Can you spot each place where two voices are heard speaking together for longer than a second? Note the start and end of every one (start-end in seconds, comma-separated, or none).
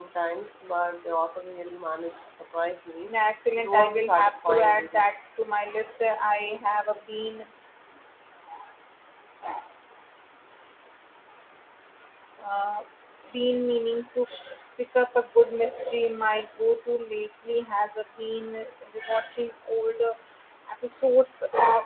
3.6-5.1